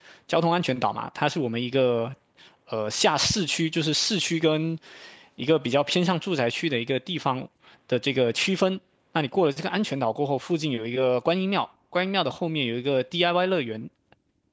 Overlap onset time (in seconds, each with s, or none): none